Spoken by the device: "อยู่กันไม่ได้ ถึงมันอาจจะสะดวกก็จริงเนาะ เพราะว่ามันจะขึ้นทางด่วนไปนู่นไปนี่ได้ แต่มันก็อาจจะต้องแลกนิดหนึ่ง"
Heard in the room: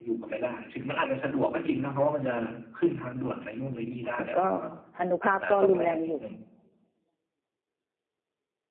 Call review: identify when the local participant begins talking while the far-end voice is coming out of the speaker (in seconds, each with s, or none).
4.2 s